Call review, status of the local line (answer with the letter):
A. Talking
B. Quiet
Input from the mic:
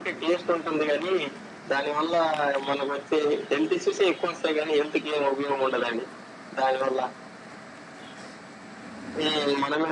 B